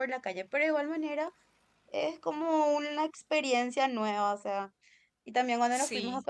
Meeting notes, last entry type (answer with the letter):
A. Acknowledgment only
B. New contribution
A